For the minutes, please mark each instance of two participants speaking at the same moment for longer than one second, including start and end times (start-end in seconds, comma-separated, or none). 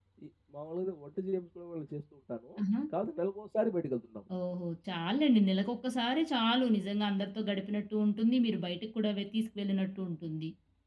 none